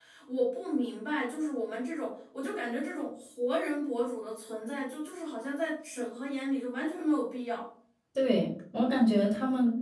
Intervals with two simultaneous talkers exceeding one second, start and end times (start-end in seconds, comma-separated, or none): none